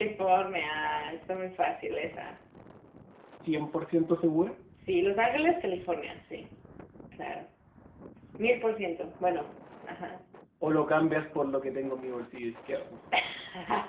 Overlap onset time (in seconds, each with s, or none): none